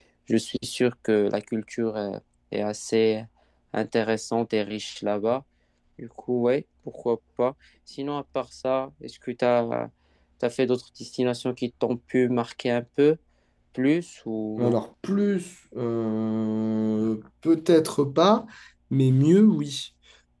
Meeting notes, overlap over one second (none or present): none